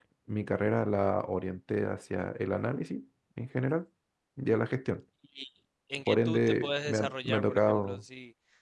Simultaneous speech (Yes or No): Yes